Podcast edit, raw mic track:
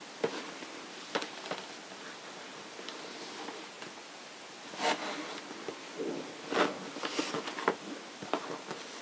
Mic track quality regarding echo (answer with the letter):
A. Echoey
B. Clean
B